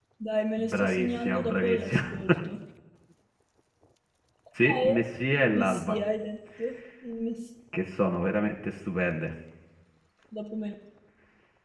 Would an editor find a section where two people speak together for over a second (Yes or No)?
Yes